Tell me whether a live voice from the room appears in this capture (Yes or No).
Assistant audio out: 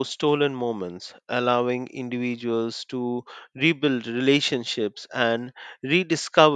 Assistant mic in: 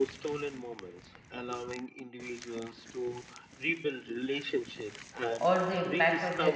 Yes